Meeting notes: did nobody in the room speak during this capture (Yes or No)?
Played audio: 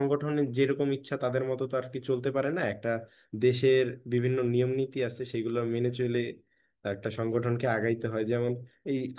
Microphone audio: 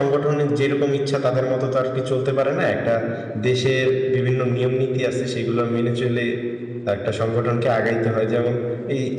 Yes